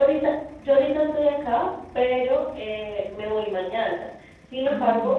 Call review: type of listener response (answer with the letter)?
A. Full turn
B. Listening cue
B